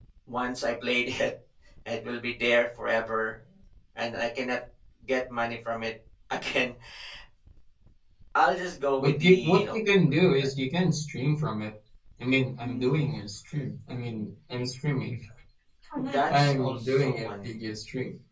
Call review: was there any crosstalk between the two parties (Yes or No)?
Yes